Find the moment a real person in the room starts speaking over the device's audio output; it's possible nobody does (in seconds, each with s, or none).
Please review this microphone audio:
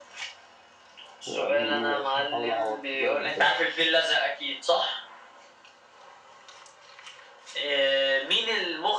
1.3 s